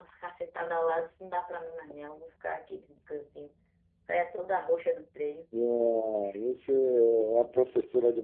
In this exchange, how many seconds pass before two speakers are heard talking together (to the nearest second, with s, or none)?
none